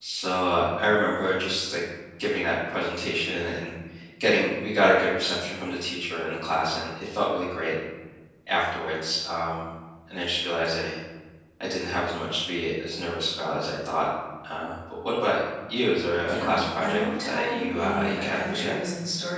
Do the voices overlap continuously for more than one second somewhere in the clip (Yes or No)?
Yes